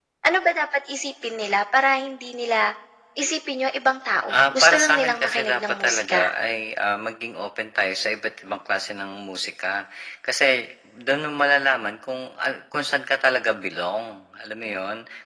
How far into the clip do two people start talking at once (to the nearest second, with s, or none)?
4 s